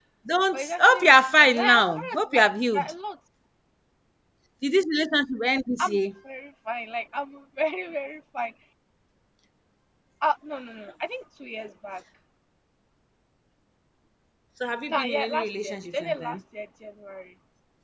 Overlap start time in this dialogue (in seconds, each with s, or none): 0.5 s